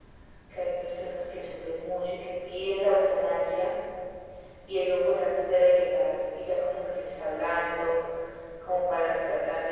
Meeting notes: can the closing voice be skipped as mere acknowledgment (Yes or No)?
Yes